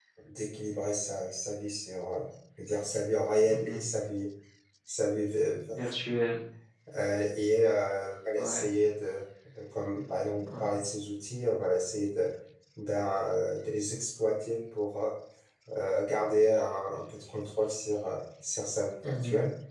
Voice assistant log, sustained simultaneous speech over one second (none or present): none